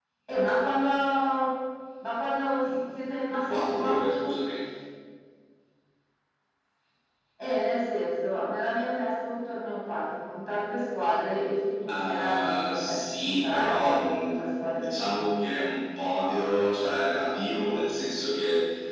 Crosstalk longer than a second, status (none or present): present